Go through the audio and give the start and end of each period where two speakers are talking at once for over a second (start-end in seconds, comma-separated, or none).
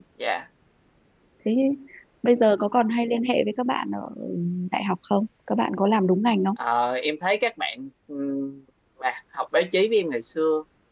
none